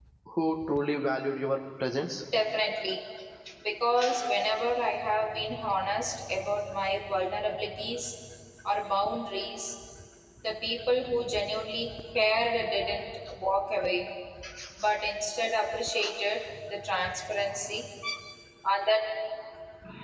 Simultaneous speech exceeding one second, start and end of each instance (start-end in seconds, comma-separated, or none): none